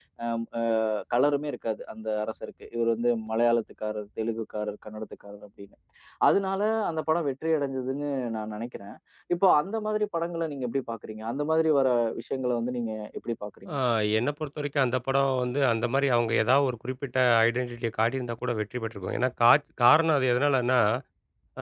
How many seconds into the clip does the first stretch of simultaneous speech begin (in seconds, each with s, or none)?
none